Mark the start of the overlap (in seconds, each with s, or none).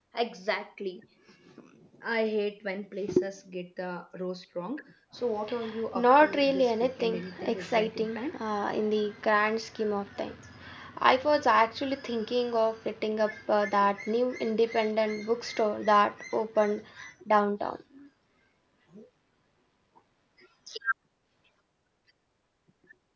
6.0 s